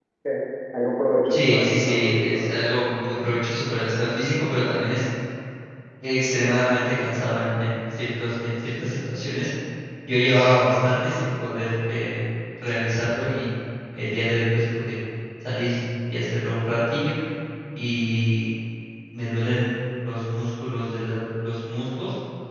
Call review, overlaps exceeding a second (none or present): present